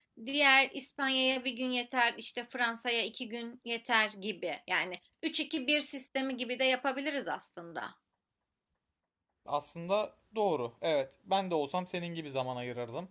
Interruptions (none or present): none